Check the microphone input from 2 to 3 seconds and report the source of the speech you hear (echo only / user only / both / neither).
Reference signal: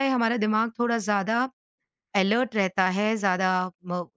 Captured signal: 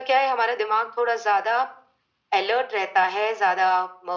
echo only